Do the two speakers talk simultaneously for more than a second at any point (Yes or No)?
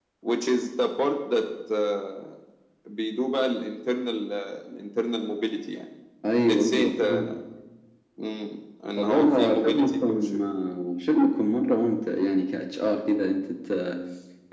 Yes